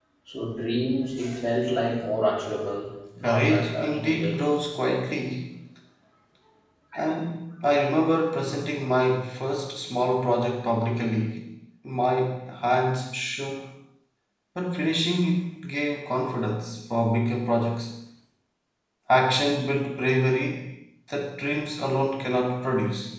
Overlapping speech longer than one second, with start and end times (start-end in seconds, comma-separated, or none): 3.2-4.5